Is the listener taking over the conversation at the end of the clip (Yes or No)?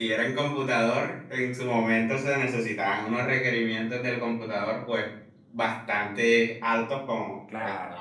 No